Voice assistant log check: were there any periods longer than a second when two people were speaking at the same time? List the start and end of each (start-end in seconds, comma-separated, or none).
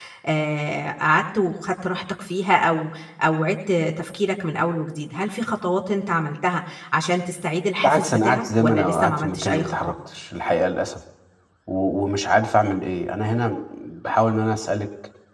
7.8-9.9